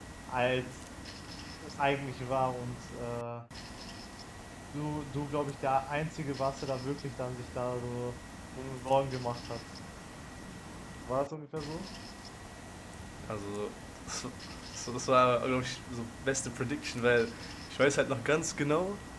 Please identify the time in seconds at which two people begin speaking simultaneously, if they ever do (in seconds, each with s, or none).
none